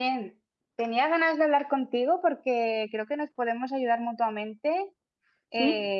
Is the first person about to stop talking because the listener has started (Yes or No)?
No